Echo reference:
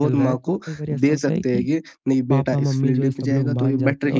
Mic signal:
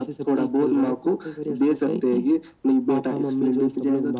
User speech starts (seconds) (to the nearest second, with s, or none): none